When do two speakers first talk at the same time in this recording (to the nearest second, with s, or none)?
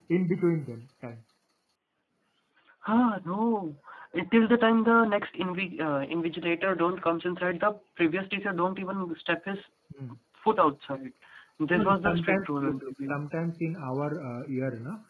12 s